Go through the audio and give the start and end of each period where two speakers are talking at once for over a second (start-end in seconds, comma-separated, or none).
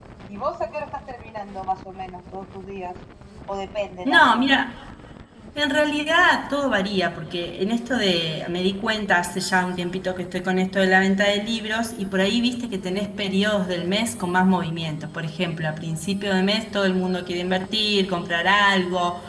none